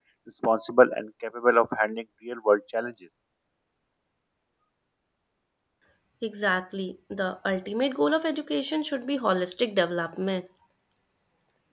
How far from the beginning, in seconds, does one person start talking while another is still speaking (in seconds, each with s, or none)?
none